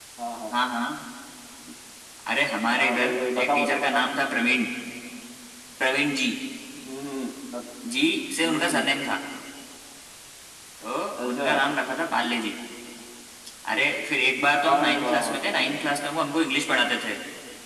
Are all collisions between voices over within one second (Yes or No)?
No